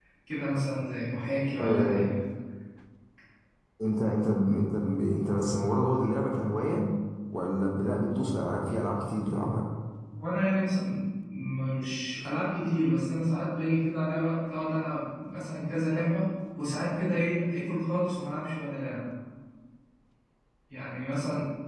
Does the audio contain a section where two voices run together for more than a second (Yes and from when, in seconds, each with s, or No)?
No